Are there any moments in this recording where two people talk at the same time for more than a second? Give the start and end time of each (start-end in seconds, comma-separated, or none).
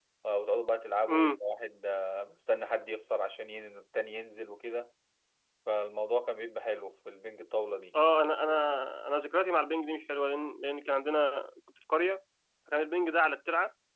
none